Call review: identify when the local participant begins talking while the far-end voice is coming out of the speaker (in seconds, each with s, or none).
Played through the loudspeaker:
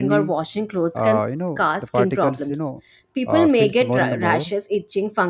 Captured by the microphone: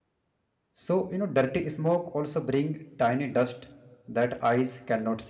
0.8 s